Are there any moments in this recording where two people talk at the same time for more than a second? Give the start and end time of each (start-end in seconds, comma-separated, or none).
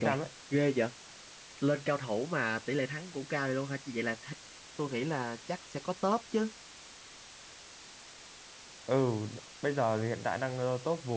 none